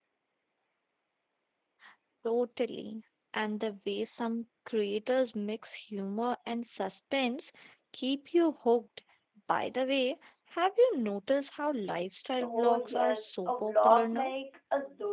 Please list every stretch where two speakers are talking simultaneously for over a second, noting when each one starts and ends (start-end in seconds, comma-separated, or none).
12.4-14.3